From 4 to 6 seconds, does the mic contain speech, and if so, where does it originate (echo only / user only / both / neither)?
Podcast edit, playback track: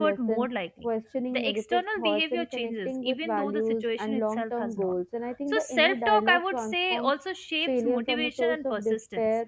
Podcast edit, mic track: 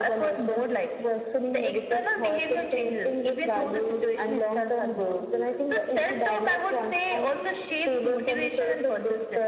echo only